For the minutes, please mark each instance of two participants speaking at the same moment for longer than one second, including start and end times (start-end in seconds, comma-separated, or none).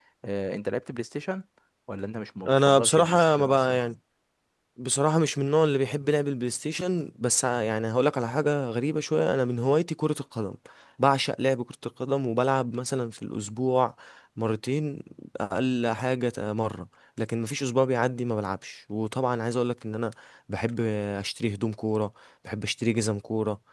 2.4-3.8